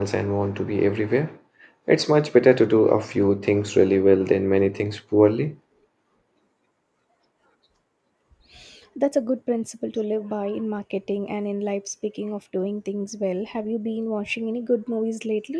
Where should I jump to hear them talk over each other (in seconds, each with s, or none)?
none